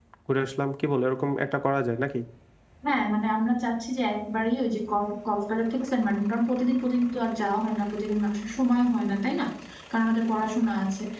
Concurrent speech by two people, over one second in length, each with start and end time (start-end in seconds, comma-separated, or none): none